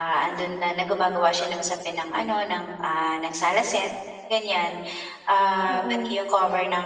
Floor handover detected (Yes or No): No